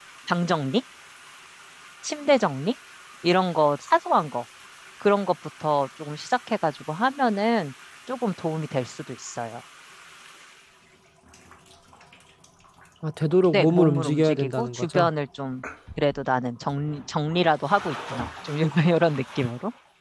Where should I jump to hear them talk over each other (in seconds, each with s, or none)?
13.5 s